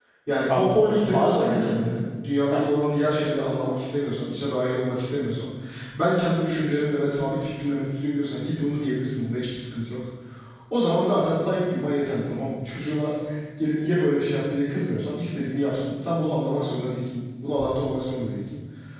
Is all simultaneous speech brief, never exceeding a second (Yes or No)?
No